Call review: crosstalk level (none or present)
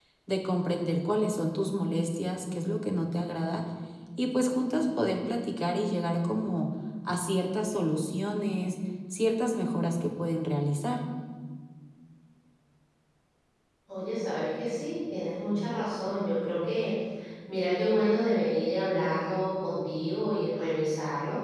none